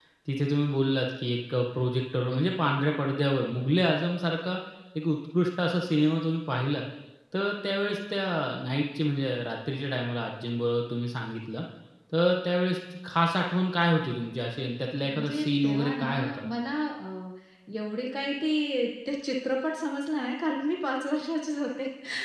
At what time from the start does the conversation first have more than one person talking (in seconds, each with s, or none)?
15.0 s